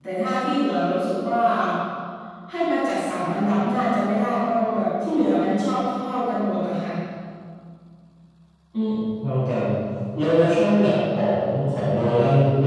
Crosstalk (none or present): none